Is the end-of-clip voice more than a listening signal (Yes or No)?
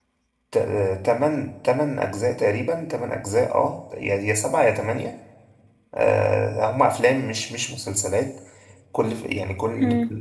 No